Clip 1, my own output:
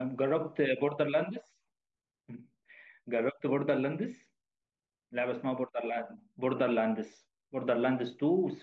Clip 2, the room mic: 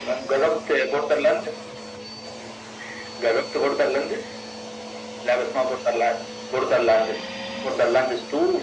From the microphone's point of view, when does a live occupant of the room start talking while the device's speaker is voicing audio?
none

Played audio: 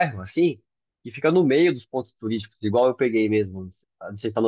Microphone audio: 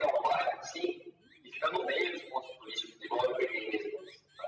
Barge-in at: none

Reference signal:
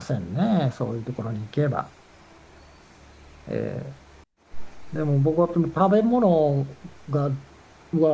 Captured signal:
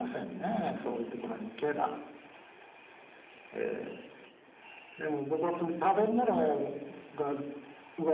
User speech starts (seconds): none

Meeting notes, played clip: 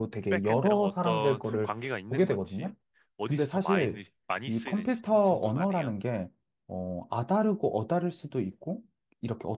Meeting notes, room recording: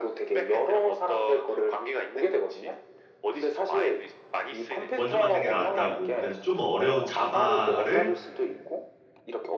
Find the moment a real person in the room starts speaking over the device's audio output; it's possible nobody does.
4.9 s

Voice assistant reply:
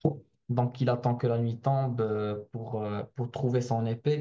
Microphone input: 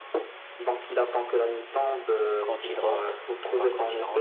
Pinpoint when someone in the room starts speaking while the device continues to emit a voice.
2.4 s

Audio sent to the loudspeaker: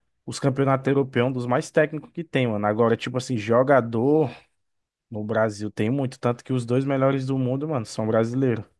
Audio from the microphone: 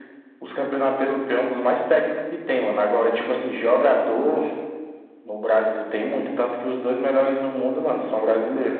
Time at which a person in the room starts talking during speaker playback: none

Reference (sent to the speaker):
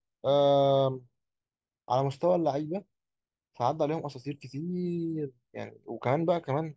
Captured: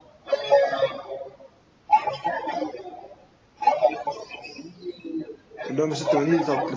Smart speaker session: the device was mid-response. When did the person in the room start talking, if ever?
5.7 s

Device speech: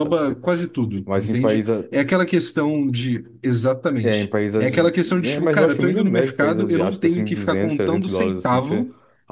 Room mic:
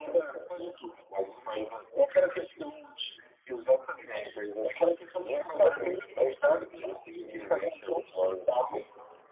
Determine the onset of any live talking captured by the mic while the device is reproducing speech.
none

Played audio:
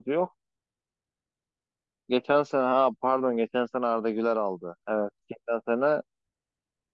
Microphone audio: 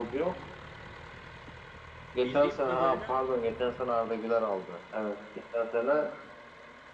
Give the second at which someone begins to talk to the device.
2.2 s

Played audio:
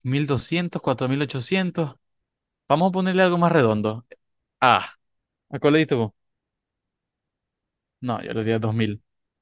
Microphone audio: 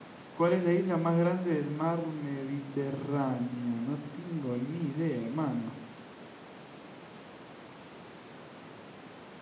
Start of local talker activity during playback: 0.3 s

